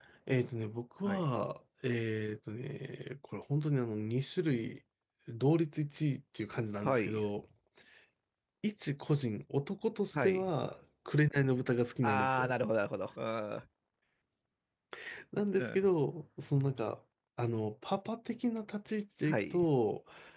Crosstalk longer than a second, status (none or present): none